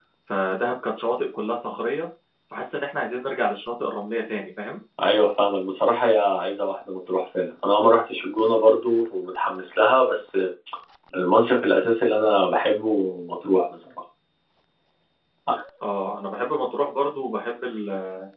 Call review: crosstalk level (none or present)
none